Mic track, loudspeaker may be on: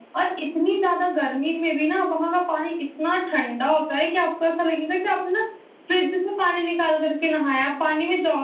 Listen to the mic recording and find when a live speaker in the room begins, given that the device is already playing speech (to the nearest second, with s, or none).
none